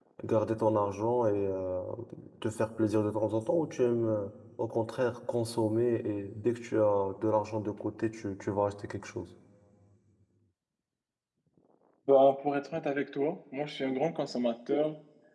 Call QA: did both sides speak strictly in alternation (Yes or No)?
Yes